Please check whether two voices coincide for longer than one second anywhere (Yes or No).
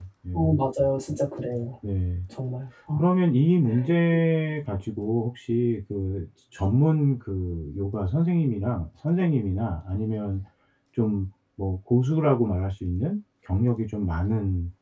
No